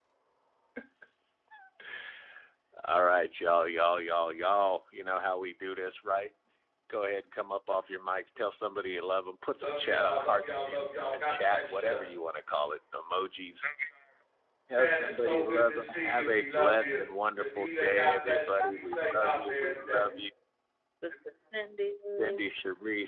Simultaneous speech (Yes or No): Yes